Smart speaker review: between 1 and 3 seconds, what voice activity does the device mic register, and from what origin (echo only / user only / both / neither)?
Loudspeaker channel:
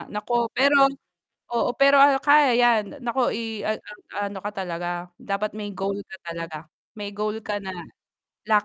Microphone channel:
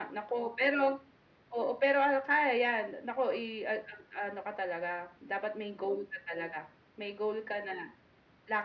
echo only